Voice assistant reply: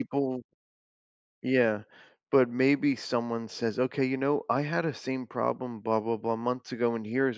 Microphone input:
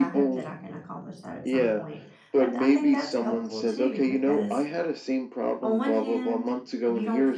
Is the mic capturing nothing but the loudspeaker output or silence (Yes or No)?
No